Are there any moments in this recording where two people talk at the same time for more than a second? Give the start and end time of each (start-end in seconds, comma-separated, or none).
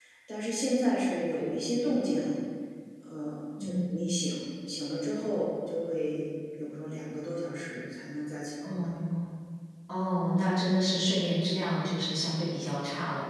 none